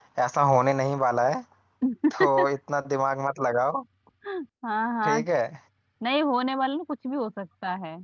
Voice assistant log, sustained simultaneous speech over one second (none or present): none